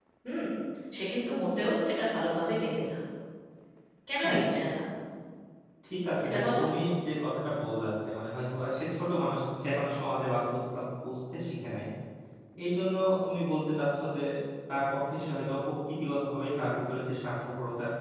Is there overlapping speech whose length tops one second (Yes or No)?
No